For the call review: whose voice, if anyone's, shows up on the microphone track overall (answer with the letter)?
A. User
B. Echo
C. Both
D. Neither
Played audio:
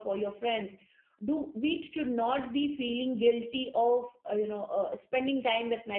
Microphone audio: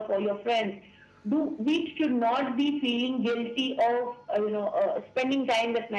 B